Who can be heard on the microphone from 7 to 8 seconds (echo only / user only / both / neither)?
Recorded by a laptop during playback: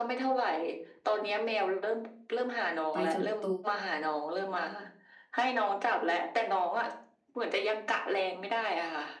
echo only